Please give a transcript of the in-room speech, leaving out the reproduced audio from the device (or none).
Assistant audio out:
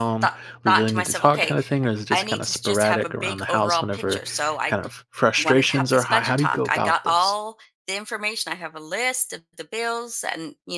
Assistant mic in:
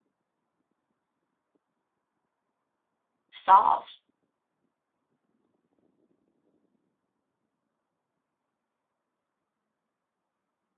solved.